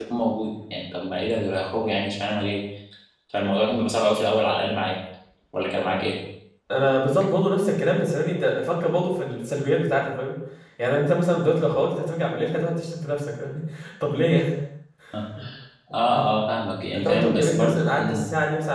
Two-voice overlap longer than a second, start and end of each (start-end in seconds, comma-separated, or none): 16.9-18.2